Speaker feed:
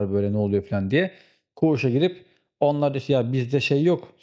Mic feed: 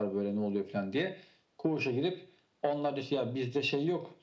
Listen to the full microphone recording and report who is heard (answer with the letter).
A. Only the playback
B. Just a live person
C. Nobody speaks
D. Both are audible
A